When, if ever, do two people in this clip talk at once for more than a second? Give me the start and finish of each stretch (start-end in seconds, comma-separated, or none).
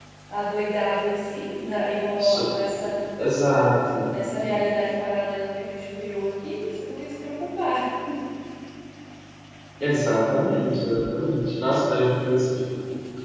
none